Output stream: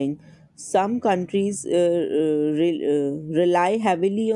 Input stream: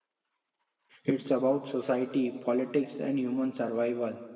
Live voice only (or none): it's about society, politics, and human survival.